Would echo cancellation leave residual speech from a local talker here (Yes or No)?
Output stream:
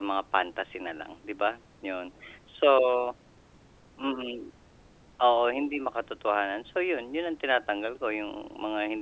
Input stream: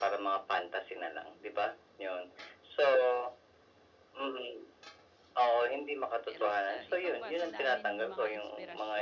Yes